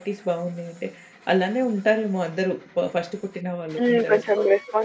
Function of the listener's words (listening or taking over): taking over